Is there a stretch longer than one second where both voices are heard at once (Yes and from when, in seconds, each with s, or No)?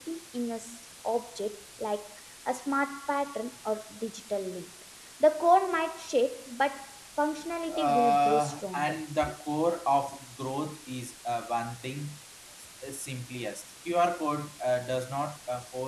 Yes, from 7.7 s